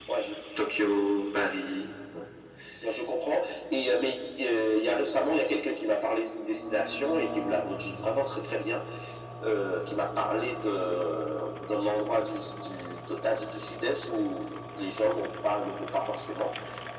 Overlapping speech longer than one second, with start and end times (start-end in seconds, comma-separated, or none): none